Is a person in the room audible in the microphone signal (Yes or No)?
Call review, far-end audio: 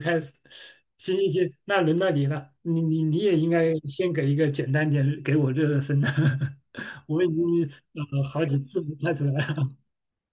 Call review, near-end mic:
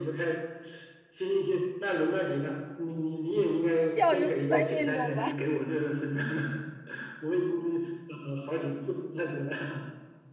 Yes